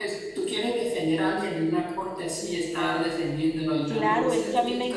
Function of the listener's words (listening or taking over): taking over